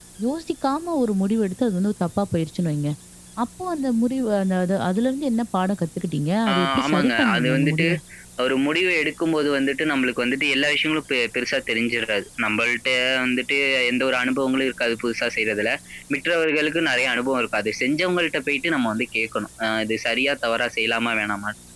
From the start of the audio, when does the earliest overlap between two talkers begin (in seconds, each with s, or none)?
6.5 s